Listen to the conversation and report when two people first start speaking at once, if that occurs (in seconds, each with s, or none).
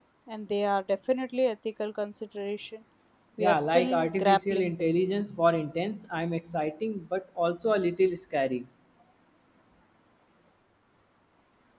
3.4 s